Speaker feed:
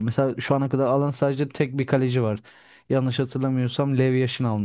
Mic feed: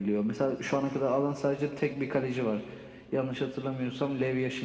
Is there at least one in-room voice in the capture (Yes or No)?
No